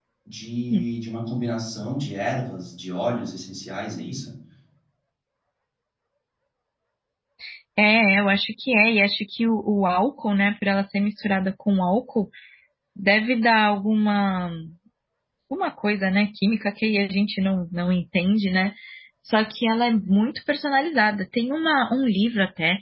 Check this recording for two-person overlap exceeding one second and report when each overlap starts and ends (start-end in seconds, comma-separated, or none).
none